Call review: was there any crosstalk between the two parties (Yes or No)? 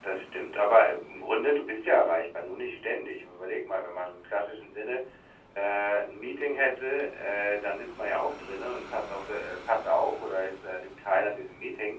No